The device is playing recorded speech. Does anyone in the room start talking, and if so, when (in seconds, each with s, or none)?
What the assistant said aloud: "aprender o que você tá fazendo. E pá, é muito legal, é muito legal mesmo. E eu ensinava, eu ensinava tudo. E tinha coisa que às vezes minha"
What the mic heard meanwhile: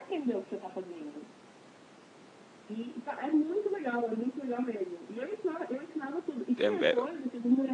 6.6 s